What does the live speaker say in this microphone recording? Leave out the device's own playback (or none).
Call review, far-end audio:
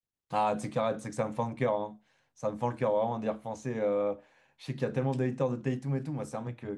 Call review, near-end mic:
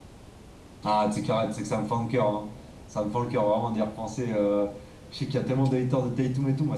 none